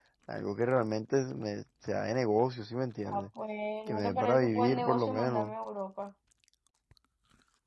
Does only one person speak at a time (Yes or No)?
No